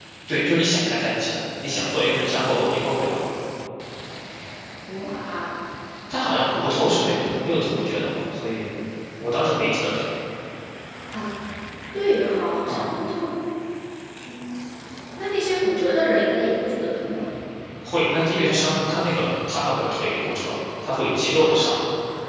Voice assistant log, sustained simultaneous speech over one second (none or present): none